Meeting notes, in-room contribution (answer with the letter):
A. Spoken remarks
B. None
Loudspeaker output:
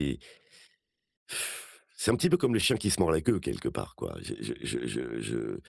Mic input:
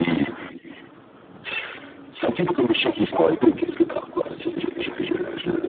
B